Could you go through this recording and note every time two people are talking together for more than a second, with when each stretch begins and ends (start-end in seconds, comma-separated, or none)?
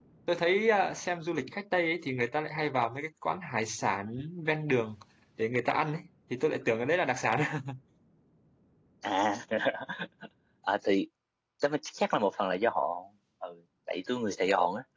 none